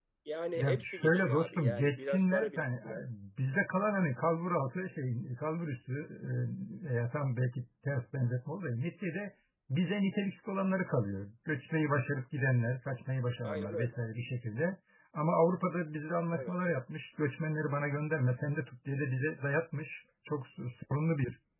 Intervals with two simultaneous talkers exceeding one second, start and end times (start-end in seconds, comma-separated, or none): 0.6-3.0